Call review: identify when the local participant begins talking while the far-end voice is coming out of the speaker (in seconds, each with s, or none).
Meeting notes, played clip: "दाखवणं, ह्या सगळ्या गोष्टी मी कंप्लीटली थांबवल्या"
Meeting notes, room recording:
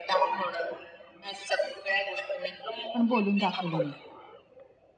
2.9 s